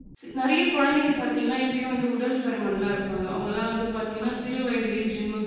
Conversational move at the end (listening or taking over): listening